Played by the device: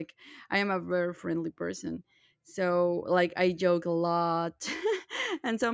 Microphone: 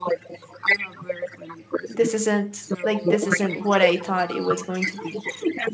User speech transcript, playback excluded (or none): this isn't like this isn't what i thought it was going to be